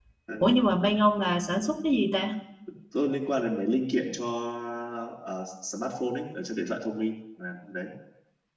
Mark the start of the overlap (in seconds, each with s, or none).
none